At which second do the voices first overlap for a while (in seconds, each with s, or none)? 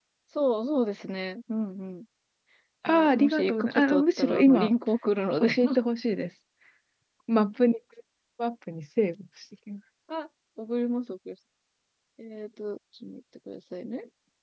2.9 s